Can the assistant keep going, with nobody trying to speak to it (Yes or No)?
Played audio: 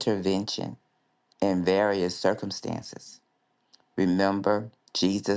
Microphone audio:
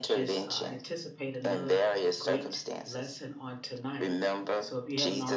No